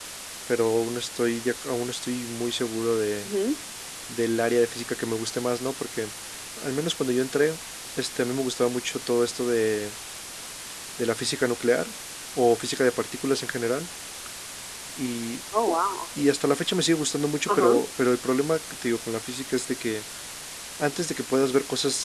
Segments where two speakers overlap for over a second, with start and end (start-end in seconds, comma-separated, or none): none